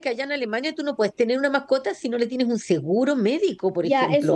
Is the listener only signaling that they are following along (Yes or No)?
No